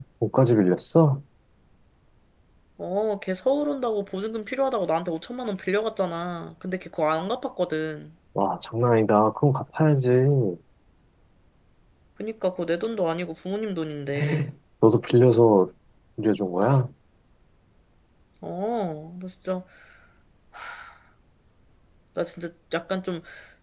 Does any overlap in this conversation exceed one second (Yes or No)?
No